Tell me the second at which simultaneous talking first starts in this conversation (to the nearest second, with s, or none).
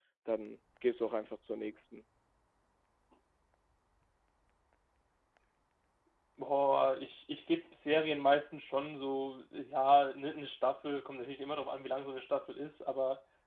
none